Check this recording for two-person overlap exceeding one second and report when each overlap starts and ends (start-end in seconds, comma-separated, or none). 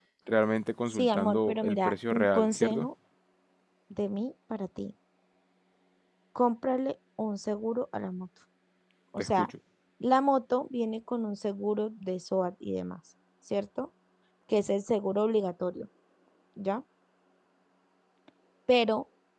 0.9-2.9